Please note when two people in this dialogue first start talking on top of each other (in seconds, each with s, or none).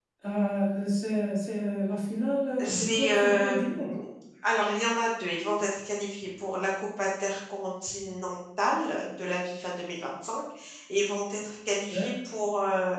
2.6 s